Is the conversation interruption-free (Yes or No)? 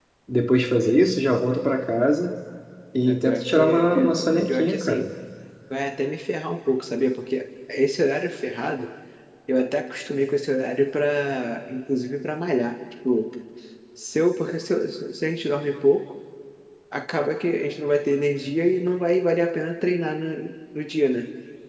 No